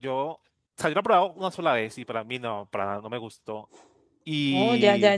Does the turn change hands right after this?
Yes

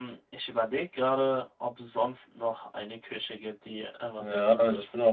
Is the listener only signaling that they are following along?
No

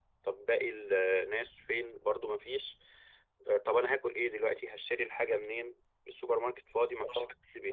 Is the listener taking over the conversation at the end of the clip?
Yes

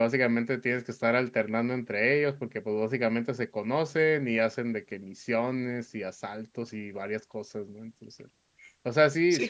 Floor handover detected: No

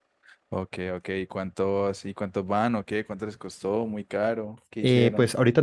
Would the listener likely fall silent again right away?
No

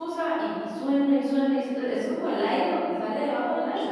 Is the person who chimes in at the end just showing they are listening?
No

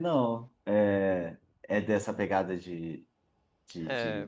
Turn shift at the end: Yes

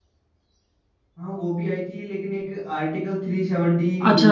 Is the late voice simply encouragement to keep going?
No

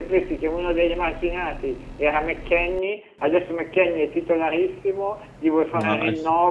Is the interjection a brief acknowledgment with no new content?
Yes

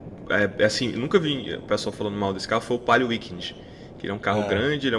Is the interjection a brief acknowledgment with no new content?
Yes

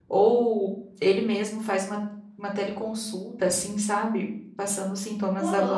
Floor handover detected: Yes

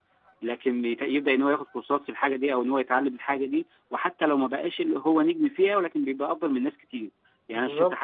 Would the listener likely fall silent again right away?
Yes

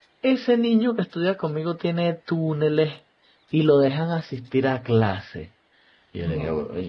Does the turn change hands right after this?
No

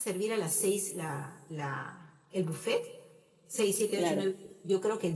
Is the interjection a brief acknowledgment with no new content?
Yes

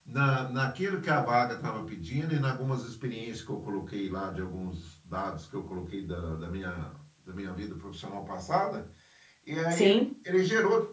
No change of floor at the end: Yes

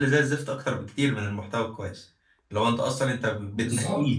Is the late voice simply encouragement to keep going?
Yes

